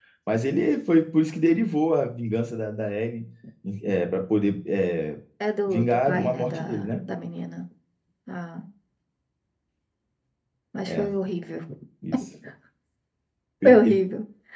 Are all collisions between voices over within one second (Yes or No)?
No